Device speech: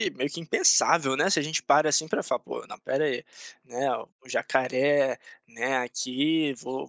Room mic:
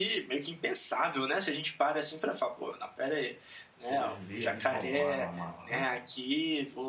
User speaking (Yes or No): Yes